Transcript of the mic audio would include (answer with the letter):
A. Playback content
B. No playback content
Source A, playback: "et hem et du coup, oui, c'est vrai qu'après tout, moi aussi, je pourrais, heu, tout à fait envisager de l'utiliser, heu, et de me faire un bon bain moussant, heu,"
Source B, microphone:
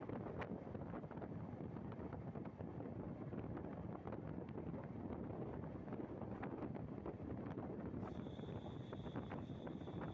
B